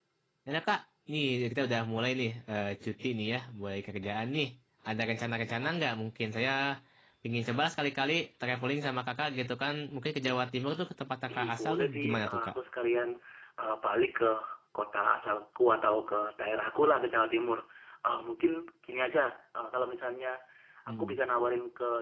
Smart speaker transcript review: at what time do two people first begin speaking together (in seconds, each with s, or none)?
11.3 s